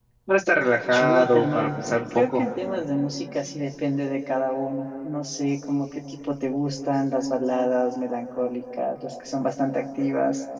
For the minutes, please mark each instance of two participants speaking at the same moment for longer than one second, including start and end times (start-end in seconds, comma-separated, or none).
0.9-2.4